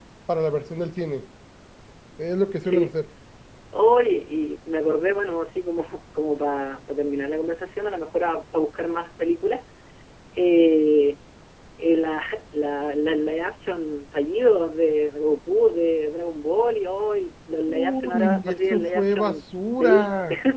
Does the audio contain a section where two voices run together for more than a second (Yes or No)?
Yes